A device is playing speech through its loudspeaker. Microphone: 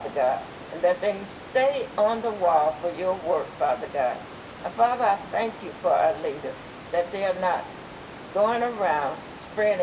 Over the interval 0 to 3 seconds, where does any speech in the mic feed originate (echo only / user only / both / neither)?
echo only